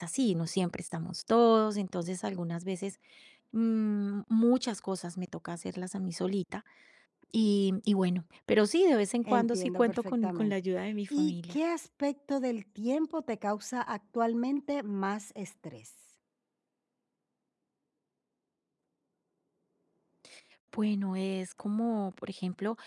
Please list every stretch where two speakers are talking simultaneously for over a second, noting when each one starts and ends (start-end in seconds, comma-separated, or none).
9.3-10.5